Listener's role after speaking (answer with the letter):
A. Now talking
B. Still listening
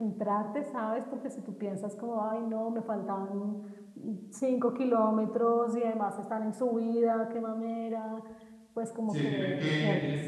A